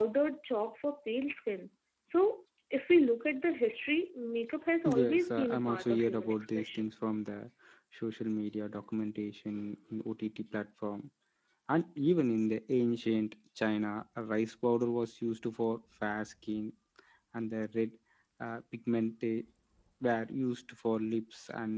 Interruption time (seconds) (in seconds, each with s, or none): 4.8 s